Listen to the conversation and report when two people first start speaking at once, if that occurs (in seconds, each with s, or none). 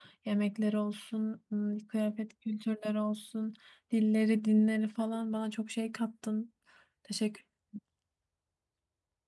none